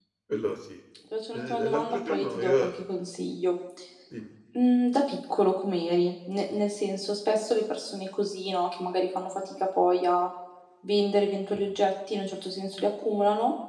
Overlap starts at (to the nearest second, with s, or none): 1 s